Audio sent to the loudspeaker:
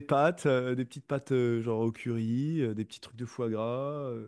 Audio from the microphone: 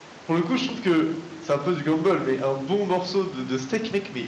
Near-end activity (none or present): present